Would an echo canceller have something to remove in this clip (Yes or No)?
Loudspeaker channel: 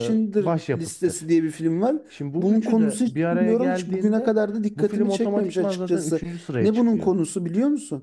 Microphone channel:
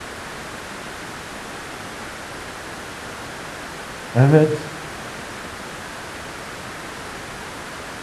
No